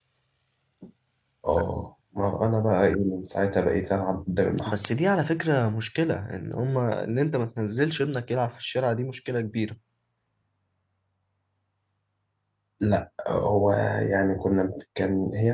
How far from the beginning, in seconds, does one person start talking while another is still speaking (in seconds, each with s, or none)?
none